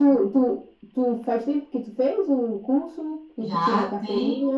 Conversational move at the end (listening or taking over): taking over